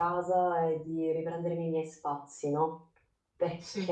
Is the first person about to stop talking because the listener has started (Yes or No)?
No